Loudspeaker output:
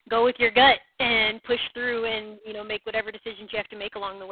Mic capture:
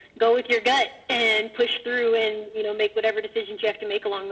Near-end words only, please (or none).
none